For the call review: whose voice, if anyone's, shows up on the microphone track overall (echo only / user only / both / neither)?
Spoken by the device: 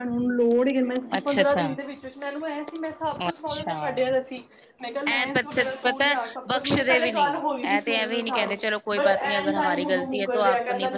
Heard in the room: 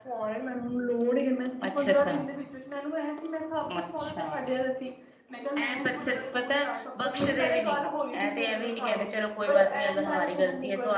echo only